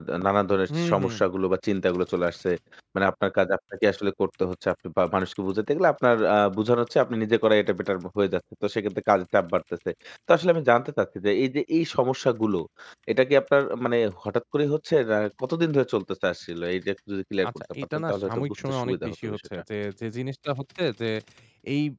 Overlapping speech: Yes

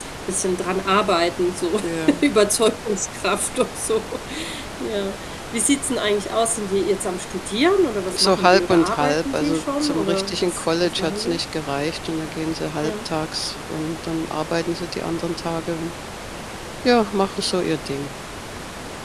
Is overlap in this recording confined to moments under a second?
No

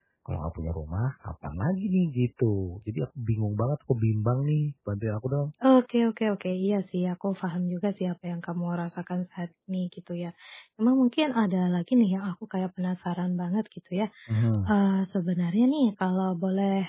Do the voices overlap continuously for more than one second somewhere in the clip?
No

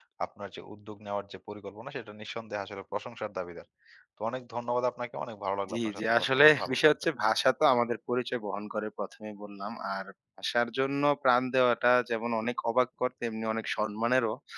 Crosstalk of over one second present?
Yes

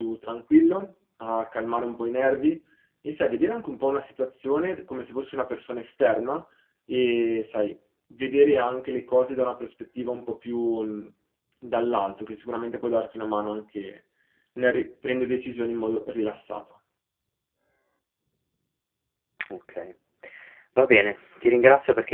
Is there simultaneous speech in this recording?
No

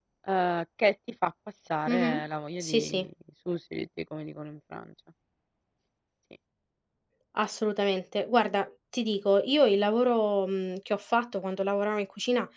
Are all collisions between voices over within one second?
Yes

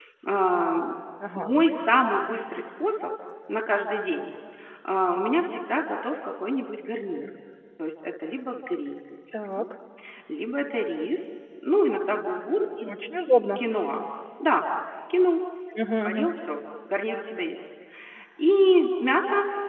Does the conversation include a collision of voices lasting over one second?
No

